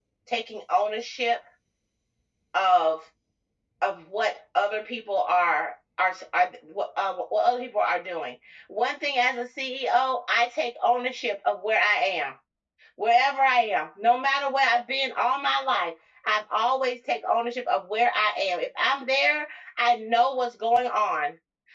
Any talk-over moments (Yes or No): No